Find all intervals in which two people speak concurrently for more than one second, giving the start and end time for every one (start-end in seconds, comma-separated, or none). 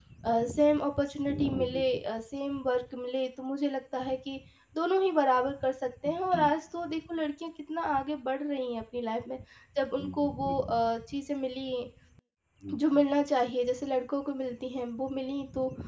none